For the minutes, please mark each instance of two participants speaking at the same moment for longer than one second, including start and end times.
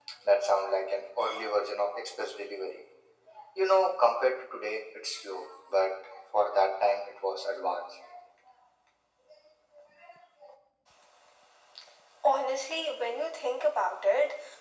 none

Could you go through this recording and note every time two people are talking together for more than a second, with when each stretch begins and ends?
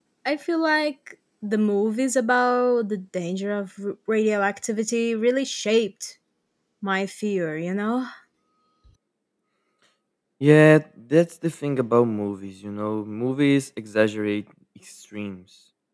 none

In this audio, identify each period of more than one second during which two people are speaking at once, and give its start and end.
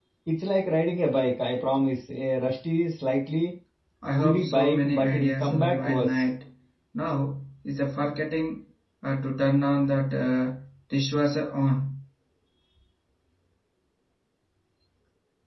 4.1-6.2

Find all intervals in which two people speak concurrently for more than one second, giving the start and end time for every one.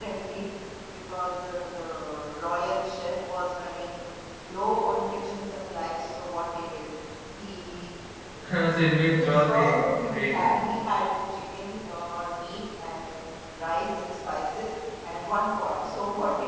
9.2-10.7

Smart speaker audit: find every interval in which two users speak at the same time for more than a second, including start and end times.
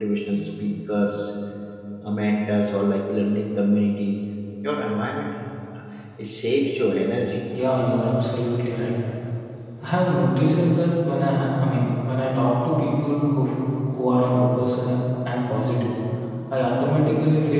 none

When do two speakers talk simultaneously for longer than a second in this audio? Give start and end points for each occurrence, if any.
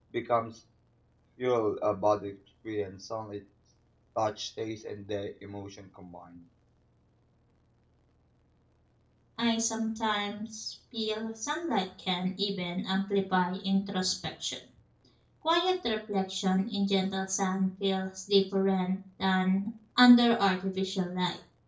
none

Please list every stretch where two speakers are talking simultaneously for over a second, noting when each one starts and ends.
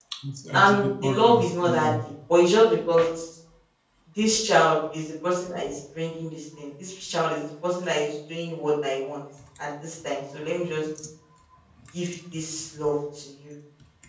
0.5-1.9

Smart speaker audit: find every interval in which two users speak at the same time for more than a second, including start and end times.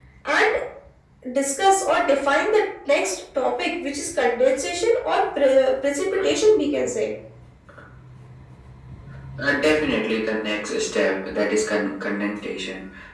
none

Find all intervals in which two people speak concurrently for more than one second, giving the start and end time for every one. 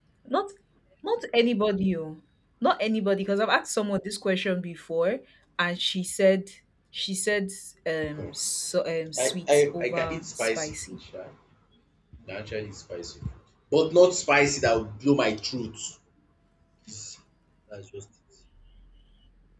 9.2-10.8

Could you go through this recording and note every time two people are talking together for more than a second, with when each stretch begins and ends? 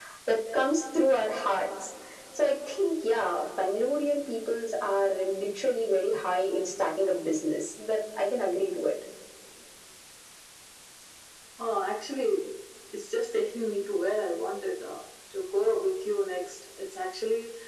none

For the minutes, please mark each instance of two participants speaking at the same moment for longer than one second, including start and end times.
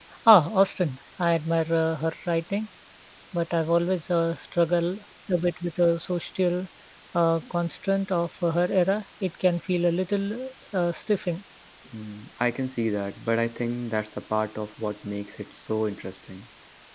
none

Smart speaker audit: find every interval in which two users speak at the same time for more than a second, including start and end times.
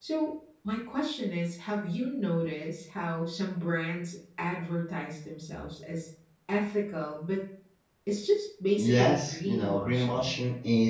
8.8-10.4

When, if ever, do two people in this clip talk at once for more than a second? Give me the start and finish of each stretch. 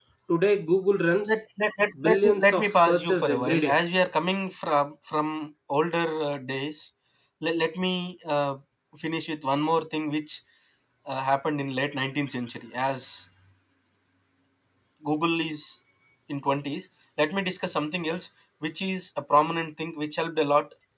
2.0-3.8

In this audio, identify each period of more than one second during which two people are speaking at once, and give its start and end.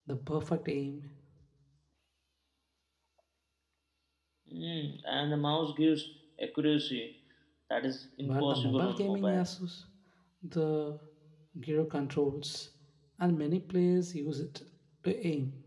8.2-9.5

